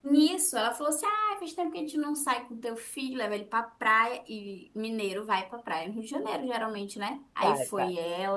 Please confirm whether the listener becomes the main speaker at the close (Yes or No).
No